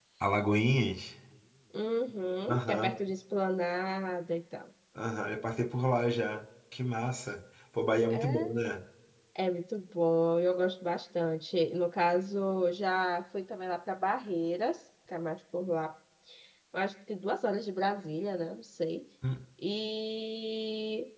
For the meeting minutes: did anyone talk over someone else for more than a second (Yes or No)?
No